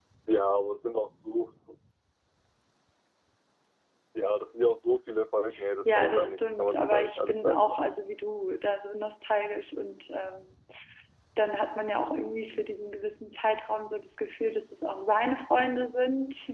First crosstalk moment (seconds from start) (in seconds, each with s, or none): 5.8 s